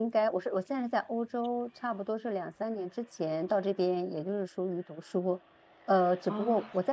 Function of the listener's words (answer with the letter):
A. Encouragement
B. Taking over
A